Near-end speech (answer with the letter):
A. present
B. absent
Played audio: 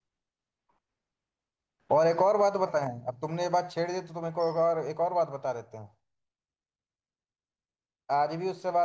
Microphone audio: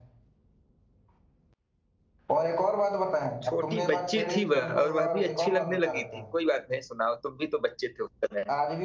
A